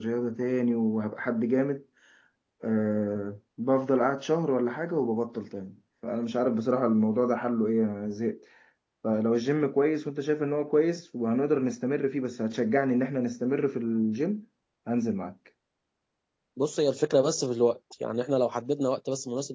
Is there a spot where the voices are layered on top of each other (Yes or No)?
No